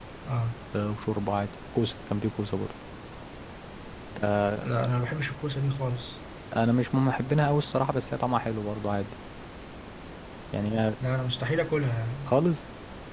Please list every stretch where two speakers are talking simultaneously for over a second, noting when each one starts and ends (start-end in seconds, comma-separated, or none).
none